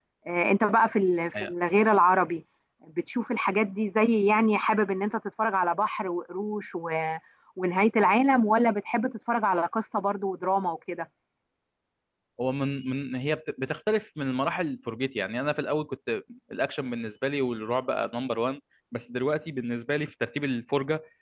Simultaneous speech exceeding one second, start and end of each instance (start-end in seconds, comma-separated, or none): none